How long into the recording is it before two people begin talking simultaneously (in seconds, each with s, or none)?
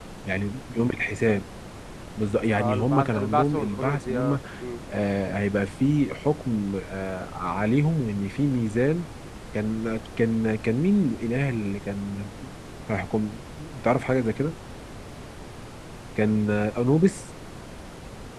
2.6 s